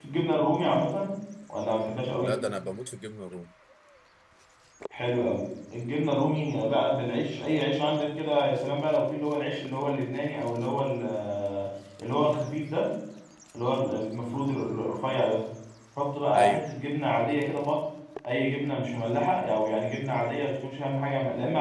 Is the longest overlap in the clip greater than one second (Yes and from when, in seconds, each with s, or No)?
No